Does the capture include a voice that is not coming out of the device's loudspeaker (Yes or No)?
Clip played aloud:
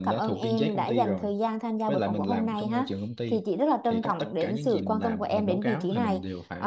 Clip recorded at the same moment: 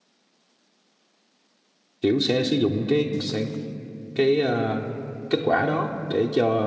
Yes